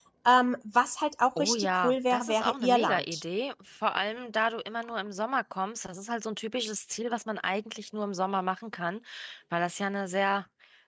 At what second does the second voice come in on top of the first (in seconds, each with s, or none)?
1.4 s